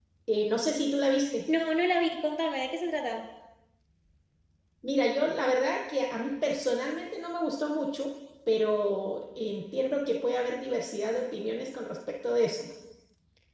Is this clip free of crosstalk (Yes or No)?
Yes